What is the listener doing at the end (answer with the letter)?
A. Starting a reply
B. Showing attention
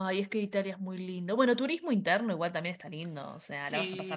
A